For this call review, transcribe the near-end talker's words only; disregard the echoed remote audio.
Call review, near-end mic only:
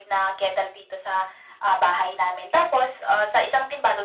none

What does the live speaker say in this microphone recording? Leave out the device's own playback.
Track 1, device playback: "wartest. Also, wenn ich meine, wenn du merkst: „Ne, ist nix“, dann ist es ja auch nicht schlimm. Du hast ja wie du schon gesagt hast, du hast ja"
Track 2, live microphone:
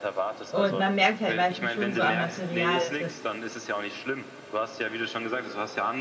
Und man merkt halt meistens schon so am Material, dass de

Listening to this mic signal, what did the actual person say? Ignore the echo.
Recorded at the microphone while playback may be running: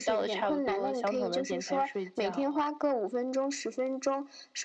none

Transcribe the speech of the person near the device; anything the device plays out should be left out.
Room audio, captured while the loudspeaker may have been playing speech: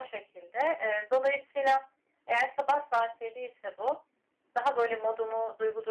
none

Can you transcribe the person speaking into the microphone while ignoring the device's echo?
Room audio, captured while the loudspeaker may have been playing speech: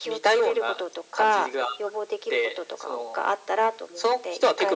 none

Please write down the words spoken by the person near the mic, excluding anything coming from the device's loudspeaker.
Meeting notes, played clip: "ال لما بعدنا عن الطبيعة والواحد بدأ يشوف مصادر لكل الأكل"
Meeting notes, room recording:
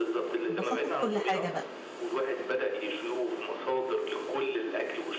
البساطة في كل حاجة بقى،

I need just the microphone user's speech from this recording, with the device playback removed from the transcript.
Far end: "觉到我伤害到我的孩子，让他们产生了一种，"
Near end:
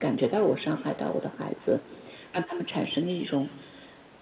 none

